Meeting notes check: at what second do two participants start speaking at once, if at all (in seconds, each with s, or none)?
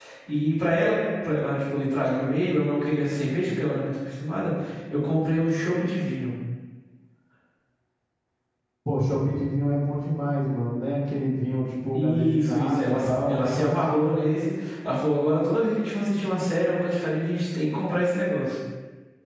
11.9 s